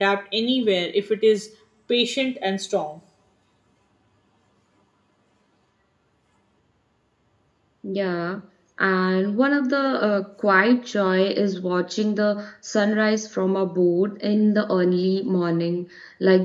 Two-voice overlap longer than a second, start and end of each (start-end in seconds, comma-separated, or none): none